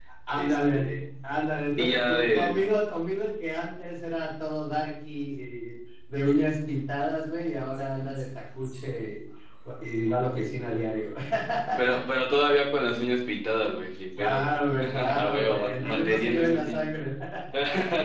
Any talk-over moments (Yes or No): Yes